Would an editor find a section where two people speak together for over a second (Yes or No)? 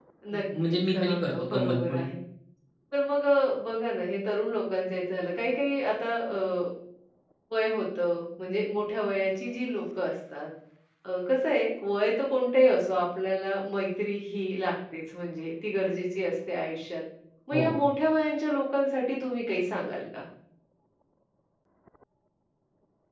Yes